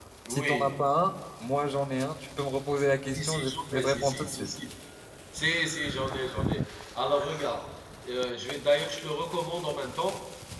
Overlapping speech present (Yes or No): Yes